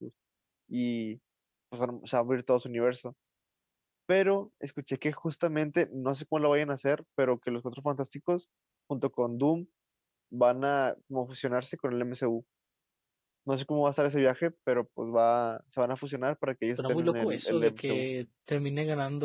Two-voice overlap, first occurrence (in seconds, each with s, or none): 16.8 s